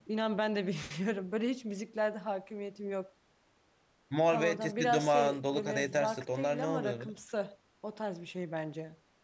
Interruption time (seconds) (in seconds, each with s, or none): 4.3 s